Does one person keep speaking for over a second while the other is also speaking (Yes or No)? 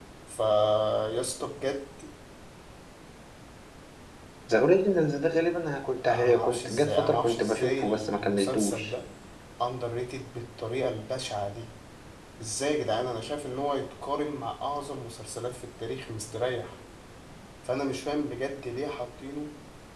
Yes